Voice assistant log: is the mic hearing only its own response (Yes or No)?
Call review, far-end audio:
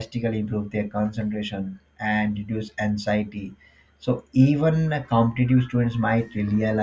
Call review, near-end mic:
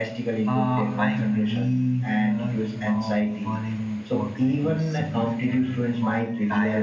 No